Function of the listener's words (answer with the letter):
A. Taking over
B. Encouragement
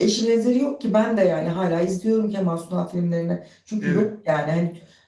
B